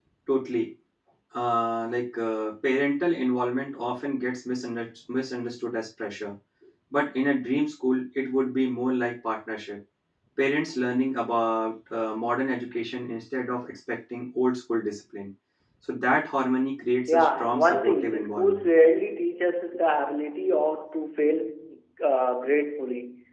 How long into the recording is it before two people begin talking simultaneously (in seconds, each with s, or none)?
17.1 s